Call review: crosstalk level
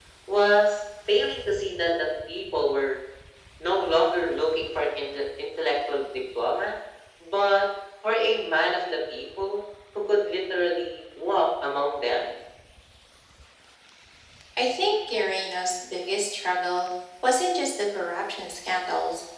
none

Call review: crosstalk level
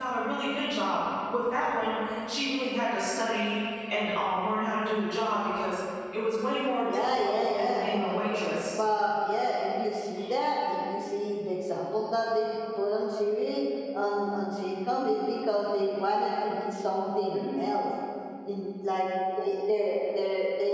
present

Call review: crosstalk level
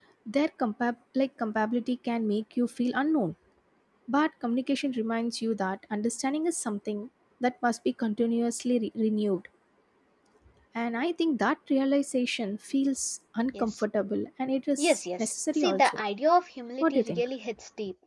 present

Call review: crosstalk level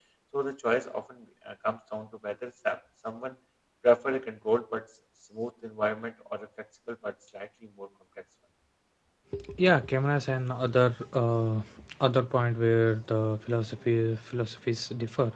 none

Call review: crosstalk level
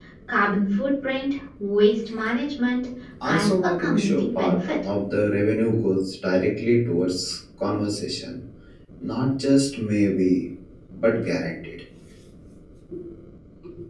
present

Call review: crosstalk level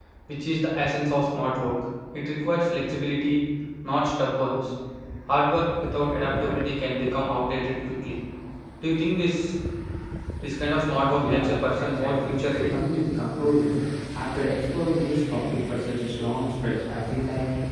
present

